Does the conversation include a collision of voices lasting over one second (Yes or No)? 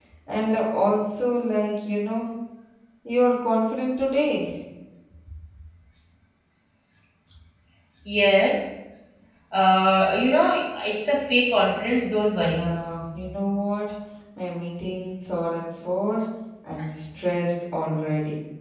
No